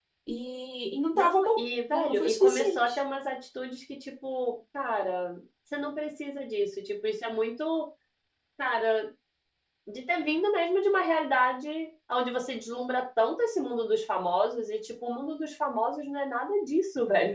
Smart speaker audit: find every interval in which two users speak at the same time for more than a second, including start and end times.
1.1-3.0

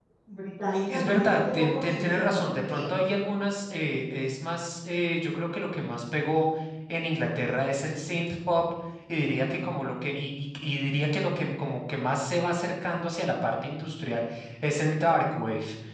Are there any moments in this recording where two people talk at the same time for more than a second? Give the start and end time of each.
0.9-2.8

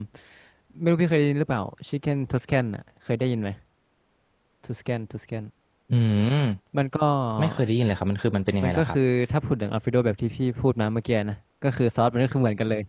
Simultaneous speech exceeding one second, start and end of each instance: none

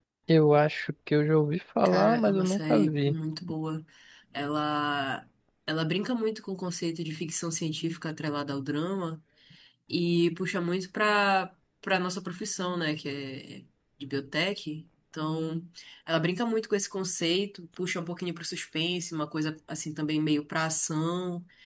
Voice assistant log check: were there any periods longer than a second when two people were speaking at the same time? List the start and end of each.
1.9-3.1

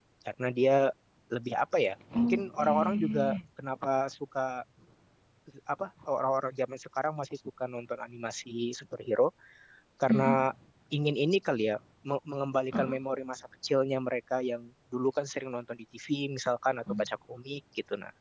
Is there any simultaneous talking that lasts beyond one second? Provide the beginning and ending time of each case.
2.2-3.4

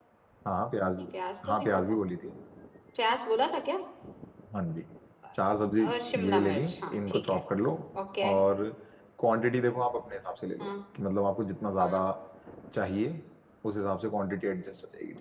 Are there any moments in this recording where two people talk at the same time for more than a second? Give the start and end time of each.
6.2-7.4

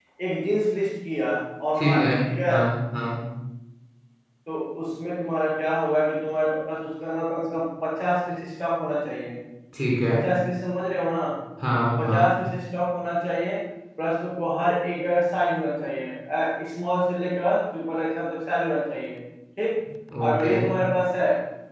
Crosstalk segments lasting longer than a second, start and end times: none

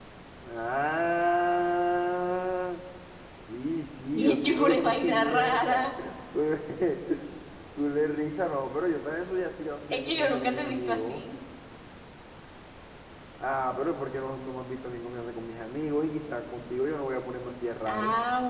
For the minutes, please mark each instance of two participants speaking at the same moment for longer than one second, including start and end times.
4.2-5.8, 9.9-11.2

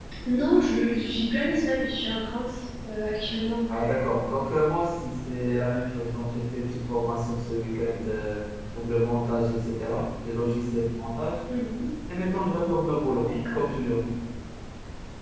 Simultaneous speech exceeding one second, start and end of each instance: none

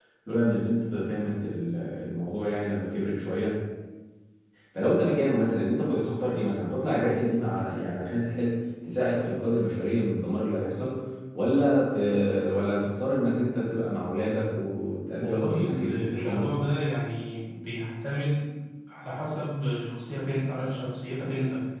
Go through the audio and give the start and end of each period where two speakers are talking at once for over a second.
15.2-16.6

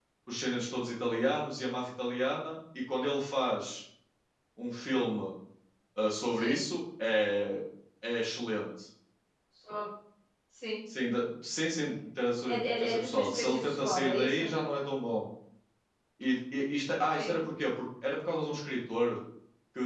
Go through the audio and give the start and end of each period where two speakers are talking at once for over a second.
12.4-14.5

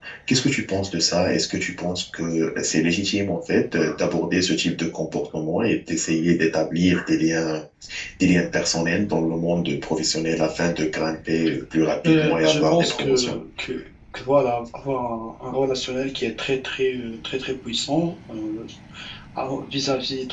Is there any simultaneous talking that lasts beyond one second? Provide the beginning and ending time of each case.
12.1-13.3

